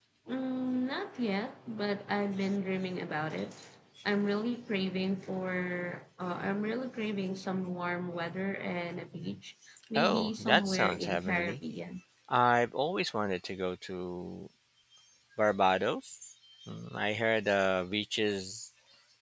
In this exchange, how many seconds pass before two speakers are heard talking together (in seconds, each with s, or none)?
9.9 s